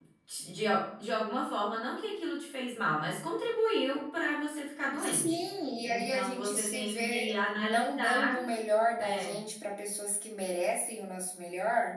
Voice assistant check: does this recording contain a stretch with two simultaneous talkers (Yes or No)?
Yes